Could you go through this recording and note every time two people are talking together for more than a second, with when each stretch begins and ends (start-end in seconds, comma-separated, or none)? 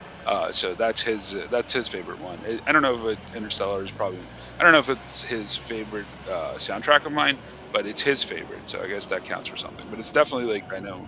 none